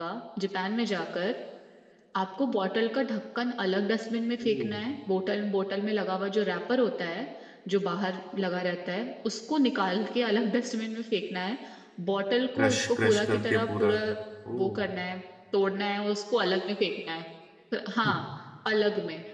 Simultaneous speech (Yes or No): Yes